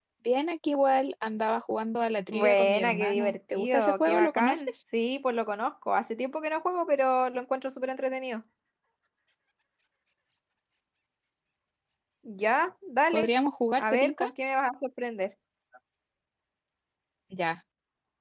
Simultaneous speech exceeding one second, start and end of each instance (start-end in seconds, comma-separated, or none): 2.3-4.7